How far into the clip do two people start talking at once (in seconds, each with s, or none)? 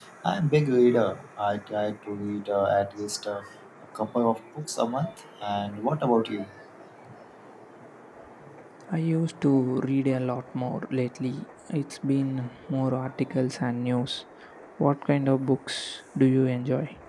none